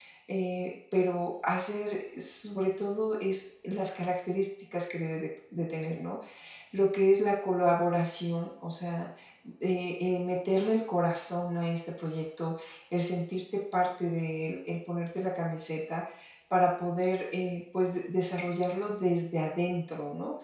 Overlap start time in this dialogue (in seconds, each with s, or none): none